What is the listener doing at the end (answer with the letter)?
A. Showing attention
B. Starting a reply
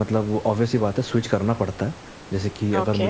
A